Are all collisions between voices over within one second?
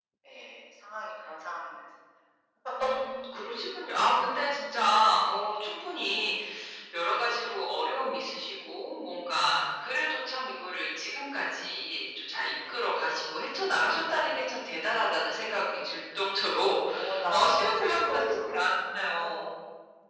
No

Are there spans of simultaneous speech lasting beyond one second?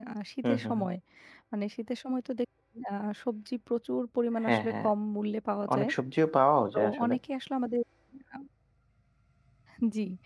No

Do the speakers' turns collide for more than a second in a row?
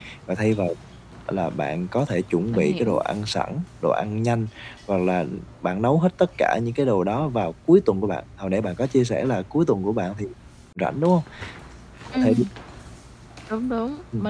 No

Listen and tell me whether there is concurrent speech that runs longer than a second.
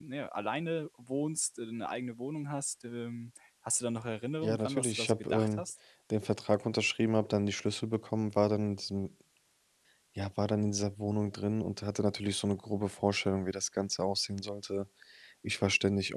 Yes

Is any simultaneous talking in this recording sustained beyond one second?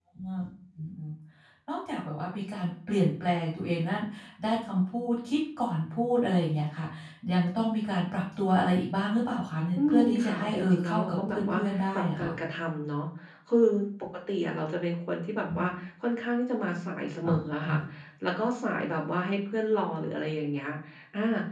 Yes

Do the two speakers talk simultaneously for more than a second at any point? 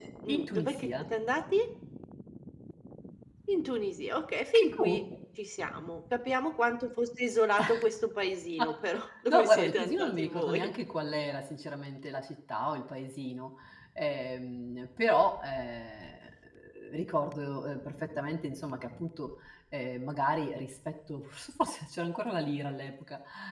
Yes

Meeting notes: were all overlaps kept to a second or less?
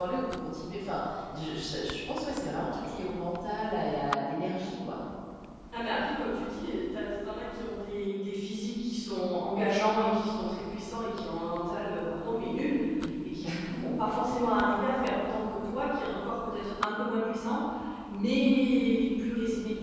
Yes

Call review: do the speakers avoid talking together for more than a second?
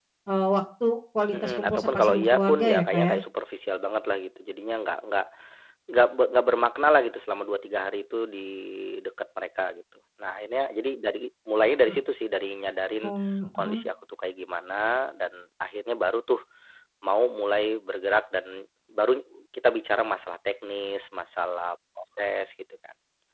No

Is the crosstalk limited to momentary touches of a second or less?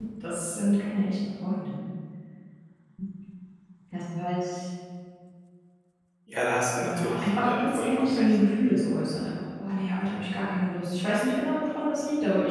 No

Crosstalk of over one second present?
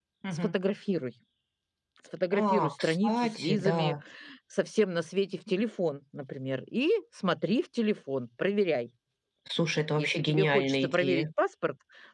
Yes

